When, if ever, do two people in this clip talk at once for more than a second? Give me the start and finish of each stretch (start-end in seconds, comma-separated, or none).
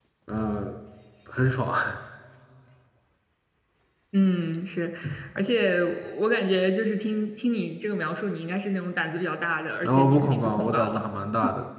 9.8-11.0